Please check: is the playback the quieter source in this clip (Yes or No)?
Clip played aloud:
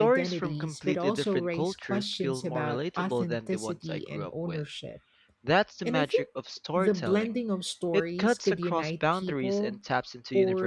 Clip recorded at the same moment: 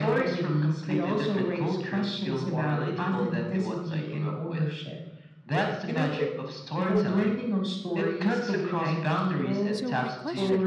No